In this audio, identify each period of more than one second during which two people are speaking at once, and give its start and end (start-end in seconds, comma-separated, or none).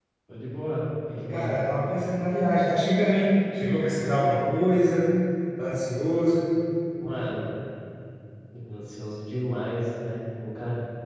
none